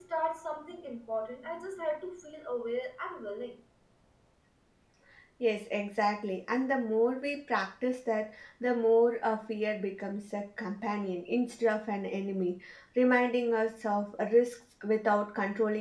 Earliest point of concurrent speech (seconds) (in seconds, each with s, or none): none